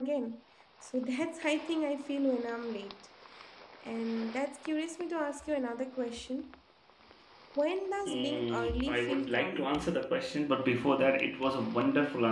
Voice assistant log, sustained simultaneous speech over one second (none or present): present